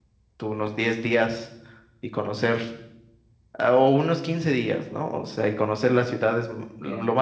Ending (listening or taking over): listening